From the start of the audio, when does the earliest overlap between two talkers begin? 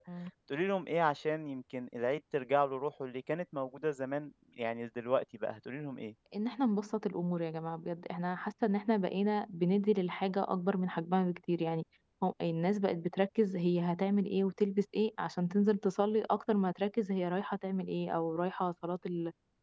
none

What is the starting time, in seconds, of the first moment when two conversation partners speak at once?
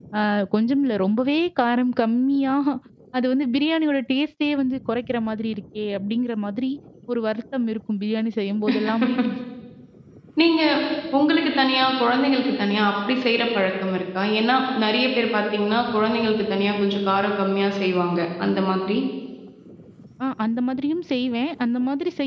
none

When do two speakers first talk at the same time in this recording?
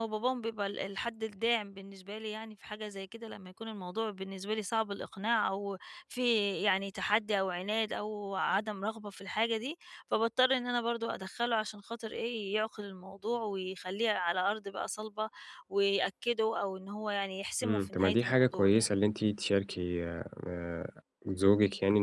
18 s

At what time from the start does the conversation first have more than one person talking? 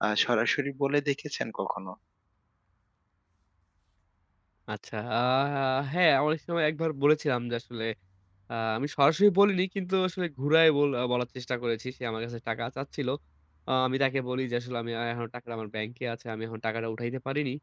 none

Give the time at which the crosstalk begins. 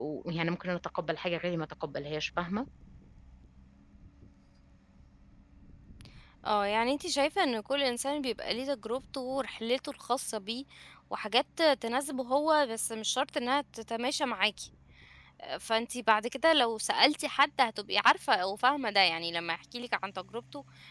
none

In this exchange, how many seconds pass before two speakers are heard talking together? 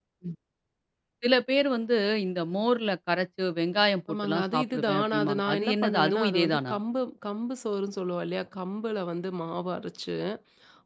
4 s

